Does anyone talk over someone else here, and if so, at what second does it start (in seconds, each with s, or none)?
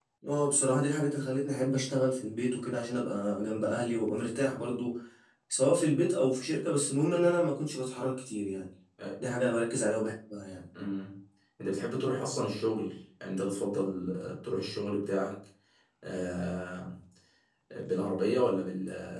none